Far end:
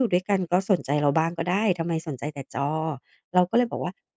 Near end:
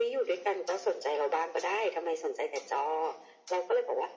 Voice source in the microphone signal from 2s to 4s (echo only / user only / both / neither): echo only